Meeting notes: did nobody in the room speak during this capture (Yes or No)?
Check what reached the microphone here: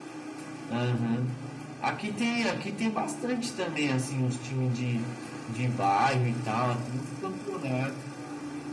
Yes